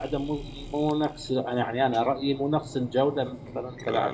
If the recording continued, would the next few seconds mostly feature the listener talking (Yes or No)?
Yes